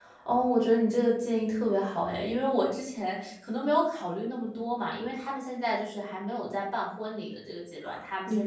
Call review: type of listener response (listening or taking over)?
listening